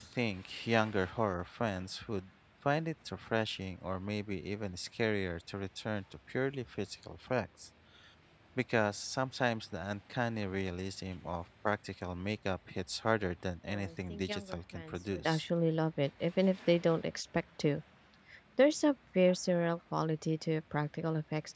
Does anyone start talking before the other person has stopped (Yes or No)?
Yes